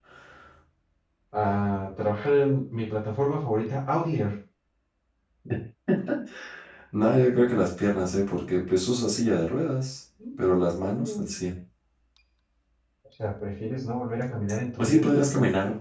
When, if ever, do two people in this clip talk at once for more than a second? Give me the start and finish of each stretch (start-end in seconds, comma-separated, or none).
none